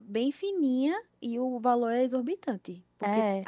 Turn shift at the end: No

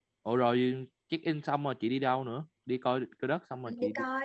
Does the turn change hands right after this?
Yes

